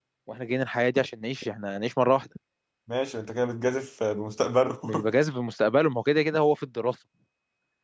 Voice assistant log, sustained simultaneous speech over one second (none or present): none